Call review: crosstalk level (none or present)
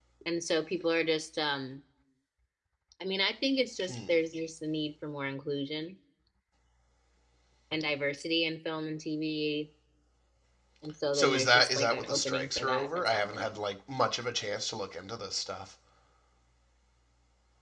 present